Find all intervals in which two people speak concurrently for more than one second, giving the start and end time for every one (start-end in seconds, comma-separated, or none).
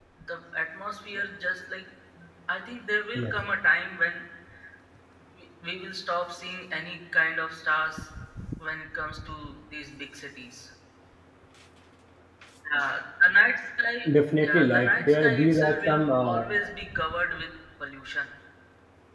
14.4-16.4